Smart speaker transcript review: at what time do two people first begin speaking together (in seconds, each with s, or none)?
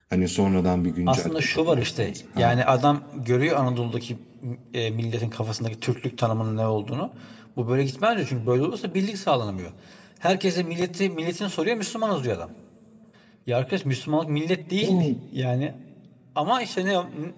1.1 s